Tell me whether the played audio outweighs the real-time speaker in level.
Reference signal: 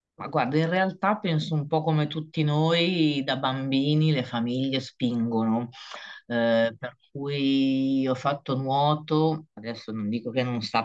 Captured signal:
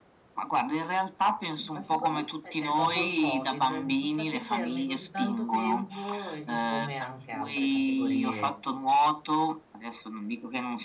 Yes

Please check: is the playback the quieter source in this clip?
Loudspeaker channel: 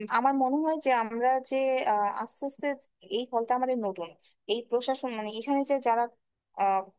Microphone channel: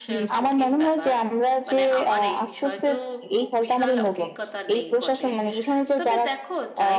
No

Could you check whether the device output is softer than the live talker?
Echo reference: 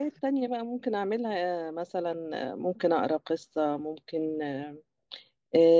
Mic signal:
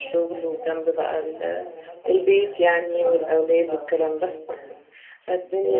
Yes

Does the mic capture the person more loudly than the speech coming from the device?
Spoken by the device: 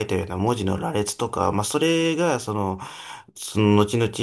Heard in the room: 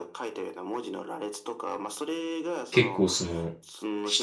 Yes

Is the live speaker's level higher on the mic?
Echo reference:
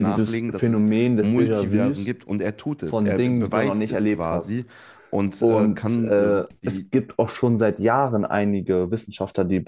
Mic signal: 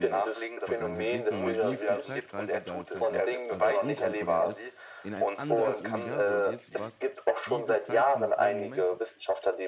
No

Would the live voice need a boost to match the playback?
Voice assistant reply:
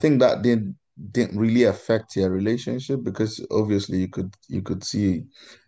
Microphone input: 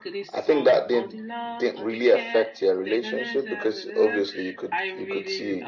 Yes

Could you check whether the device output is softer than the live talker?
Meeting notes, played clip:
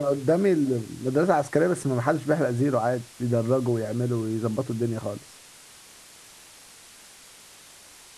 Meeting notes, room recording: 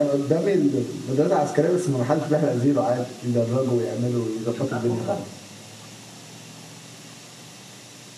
No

